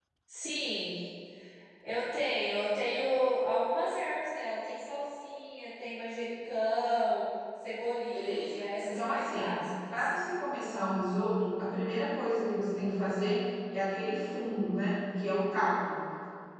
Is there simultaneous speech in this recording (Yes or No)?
Yes